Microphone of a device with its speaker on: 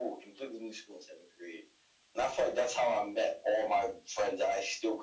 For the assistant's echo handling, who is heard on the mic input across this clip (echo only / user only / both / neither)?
echo only